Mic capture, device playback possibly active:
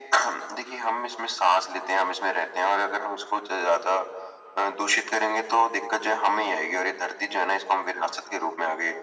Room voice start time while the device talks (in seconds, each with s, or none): none